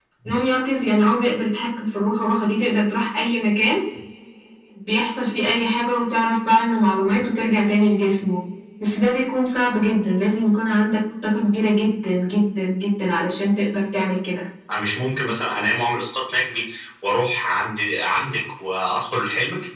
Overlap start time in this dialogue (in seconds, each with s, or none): none